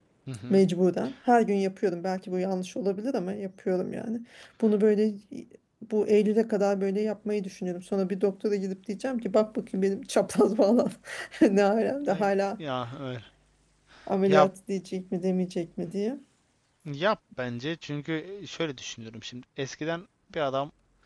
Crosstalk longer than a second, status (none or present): none